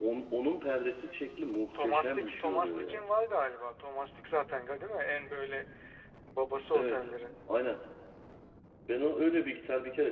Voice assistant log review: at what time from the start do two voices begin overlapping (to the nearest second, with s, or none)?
2 s